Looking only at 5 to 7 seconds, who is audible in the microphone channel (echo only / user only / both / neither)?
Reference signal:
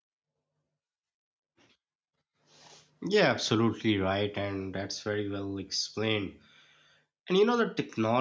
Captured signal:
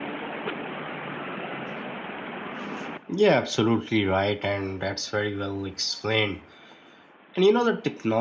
echo only